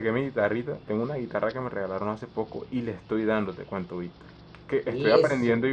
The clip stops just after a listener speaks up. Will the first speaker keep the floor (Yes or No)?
Yes